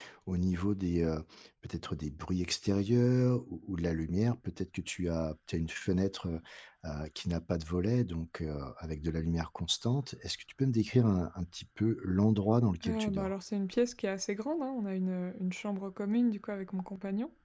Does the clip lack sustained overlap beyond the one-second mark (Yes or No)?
Yes